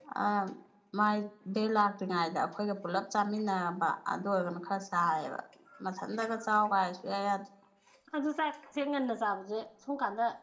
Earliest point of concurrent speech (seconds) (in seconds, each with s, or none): none